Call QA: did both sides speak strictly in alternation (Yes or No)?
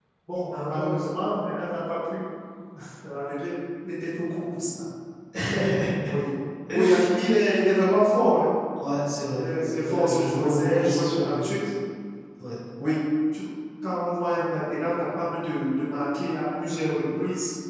No